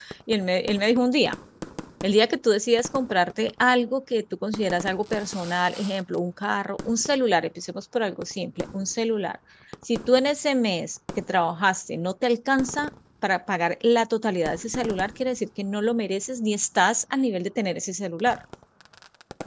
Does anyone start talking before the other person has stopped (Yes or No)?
No